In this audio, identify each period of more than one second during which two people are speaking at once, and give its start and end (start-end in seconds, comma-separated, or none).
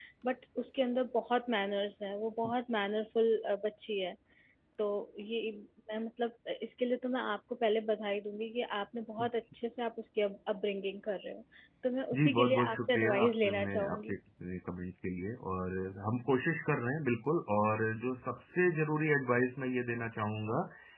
12.2-14.2